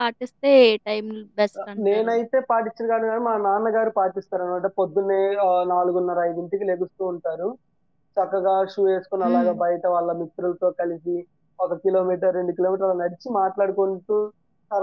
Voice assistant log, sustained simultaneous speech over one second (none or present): none